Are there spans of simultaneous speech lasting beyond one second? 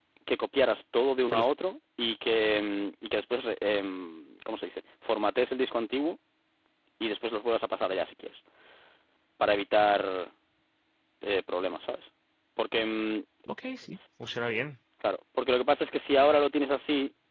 No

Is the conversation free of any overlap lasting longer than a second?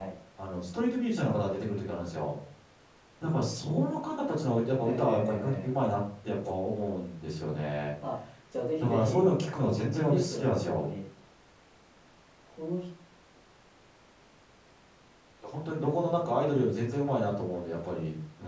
No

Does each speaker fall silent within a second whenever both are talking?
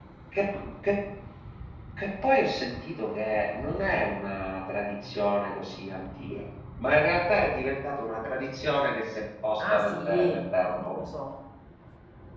No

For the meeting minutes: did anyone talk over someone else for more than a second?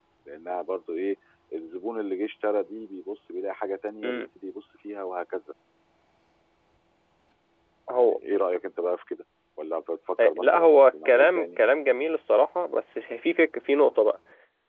Yes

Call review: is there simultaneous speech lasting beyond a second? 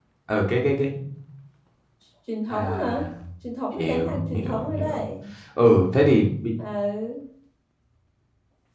Yes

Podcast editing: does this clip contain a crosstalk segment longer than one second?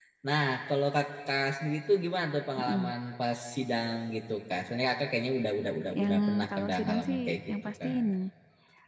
Yes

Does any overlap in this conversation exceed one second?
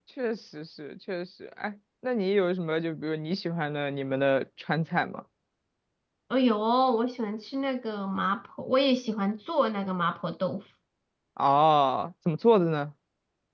No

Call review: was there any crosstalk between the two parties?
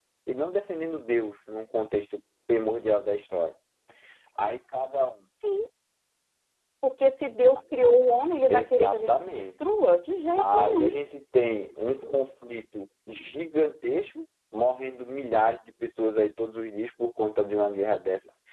Yes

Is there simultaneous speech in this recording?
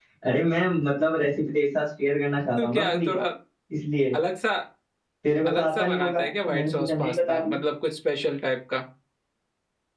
Yes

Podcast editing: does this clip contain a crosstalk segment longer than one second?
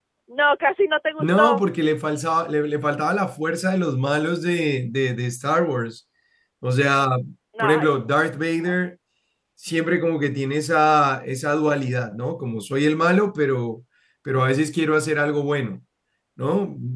No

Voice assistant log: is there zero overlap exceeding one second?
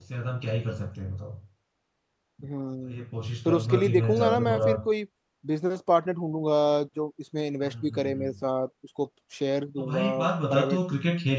No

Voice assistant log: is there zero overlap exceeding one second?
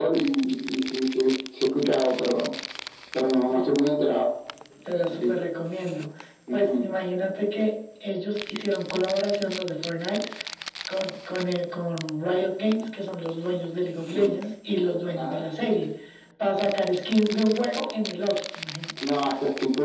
Yes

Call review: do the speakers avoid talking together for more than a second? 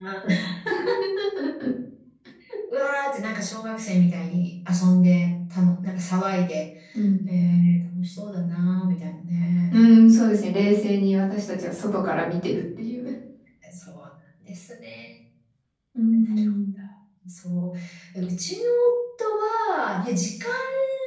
Yes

